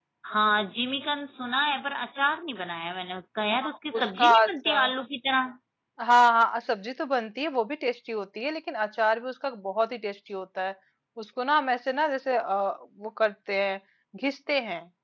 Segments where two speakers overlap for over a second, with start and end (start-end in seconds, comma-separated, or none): 3.6-4.9